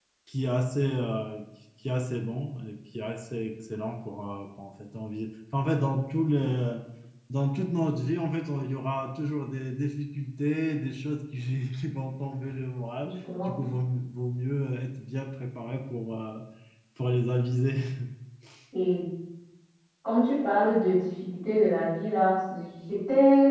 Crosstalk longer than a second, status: none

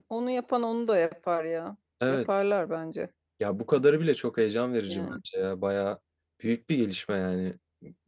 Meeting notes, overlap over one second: none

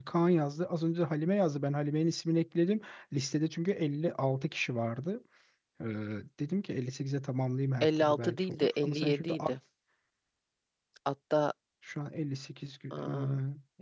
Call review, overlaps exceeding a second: present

